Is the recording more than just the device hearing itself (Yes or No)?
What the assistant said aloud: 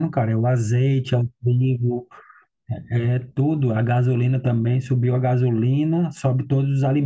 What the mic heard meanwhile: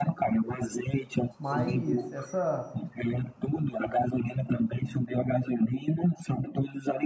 Yes